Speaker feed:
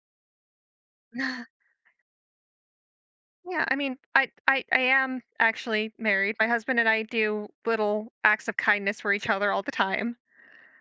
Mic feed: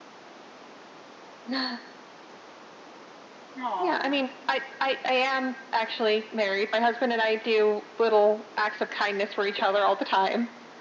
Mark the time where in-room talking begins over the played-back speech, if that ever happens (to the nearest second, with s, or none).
4 s